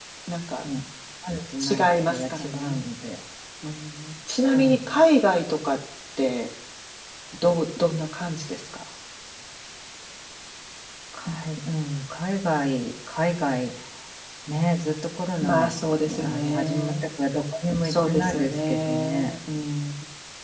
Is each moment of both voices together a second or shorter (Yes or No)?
No